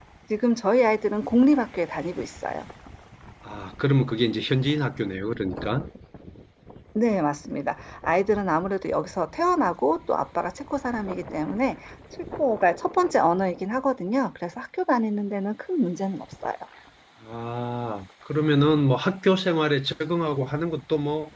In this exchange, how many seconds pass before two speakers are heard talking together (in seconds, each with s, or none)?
none